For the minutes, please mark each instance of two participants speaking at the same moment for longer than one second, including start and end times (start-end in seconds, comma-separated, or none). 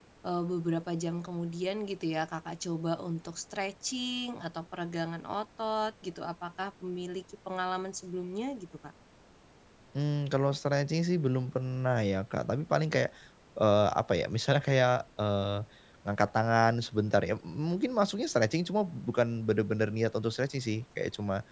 none